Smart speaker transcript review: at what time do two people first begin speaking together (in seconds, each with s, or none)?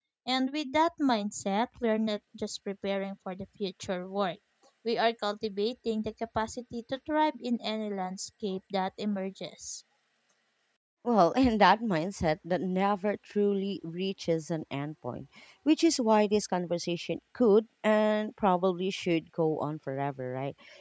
none